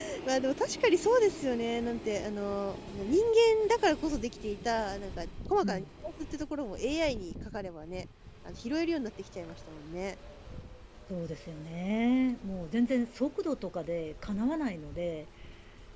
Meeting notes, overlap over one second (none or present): none